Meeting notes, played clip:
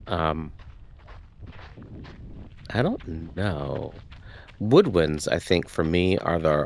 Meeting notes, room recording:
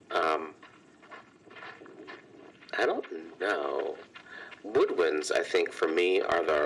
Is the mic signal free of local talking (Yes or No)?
Yes